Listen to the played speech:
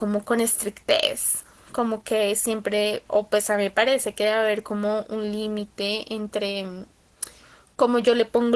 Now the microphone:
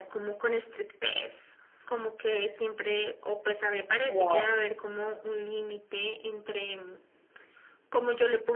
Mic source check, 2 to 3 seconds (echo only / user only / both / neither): echo only